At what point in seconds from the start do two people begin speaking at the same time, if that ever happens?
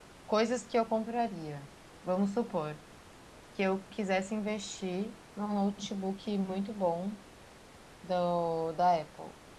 none

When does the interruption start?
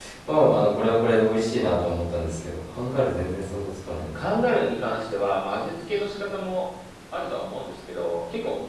none

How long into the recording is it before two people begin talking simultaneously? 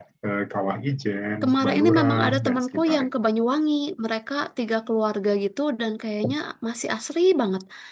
1.4 s

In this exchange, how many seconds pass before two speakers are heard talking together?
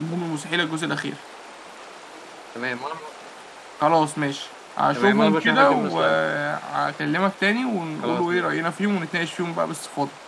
4.9 s

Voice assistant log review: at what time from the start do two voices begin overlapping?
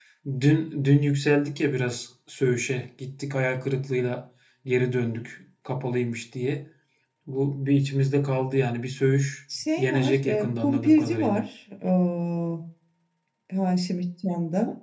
9.8 s

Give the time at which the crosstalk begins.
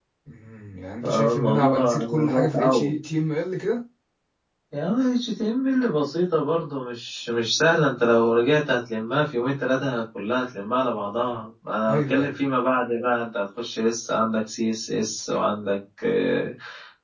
1.0 s

